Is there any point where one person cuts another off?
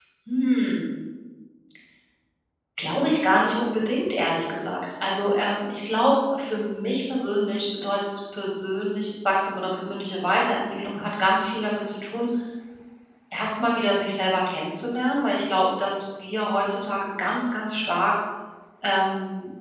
No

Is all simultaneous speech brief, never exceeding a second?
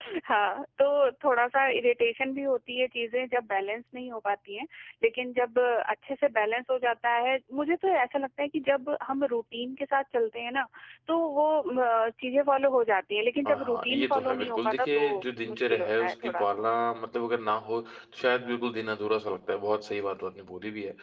No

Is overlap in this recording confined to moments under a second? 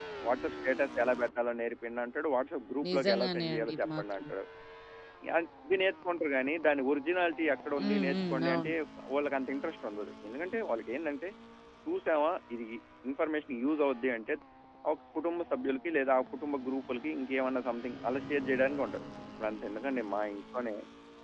No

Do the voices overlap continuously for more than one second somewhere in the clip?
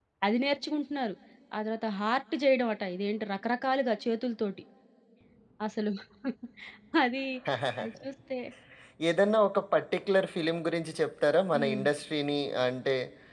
No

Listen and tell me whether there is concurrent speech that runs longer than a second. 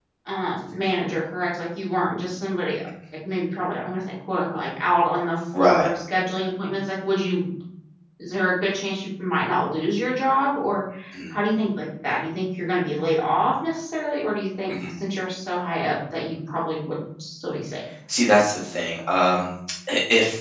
No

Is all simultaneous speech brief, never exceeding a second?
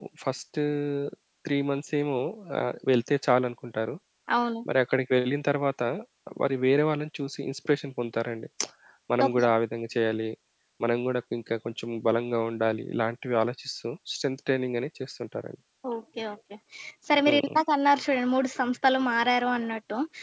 Yes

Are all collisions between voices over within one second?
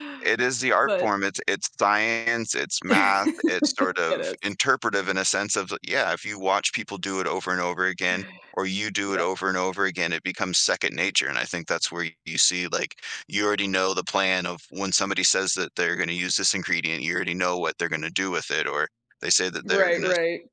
No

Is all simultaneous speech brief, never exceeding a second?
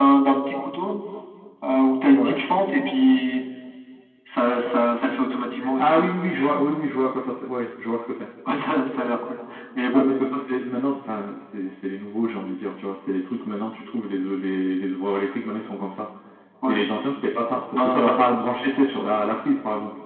Yes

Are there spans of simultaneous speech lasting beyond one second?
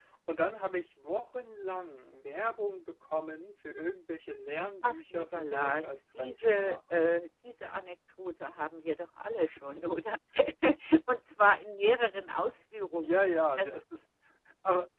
Yes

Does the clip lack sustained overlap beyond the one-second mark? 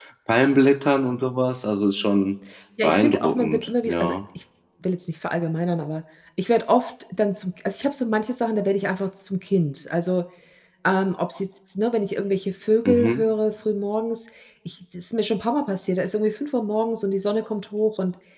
No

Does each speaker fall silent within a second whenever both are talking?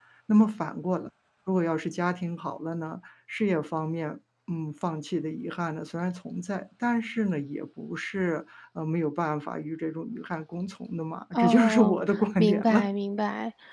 No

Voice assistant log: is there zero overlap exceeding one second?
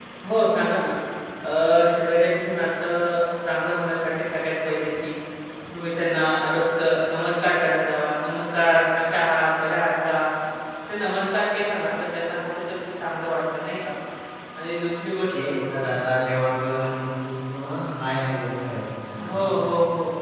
Yes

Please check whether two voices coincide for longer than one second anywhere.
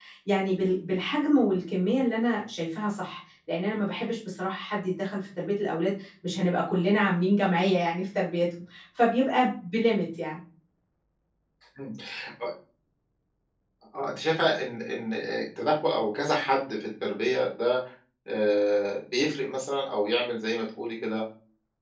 No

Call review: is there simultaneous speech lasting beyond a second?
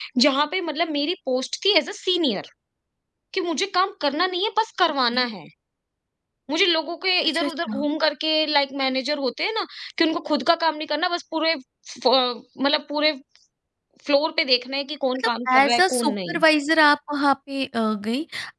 Yes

